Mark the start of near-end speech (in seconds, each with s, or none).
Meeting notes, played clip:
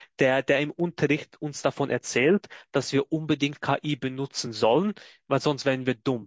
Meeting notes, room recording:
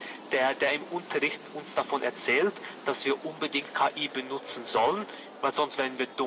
none